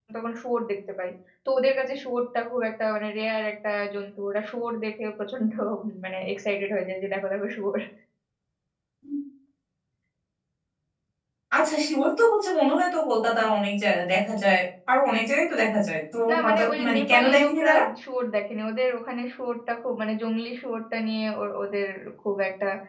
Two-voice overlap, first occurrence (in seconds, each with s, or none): 16.3 s